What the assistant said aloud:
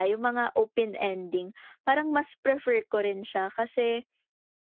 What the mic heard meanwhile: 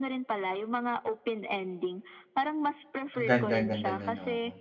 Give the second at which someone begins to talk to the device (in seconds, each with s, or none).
3.2 s